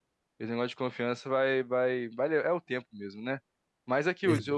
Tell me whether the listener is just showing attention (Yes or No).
Yes